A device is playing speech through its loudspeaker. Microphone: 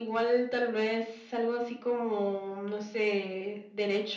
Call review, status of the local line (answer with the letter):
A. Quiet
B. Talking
A